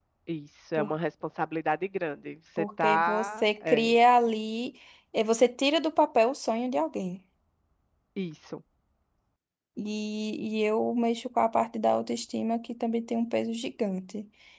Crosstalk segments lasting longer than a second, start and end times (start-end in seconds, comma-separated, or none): 2.6-3.9